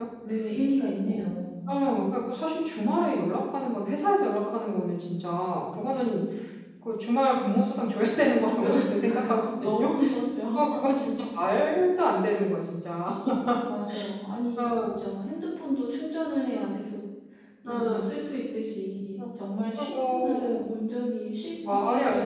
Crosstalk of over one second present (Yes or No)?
Yes